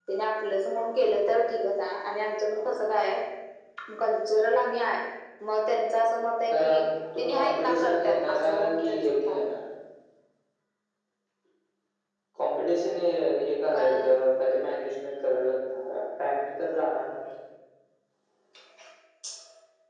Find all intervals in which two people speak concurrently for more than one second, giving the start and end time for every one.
7.2-9.5

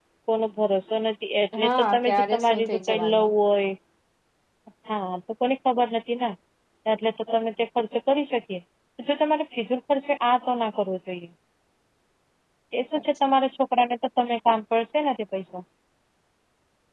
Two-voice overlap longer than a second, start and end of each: 1.6-3.3

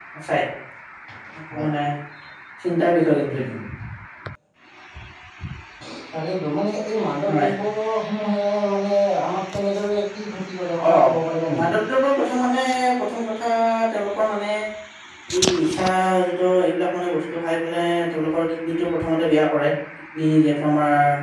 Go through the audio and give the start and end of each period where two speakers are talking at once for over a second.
none

